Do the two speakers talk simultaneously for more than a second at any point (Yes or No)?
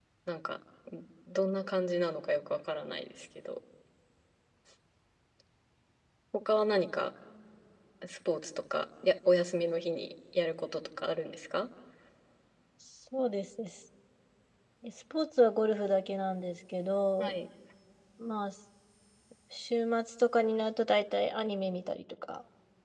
No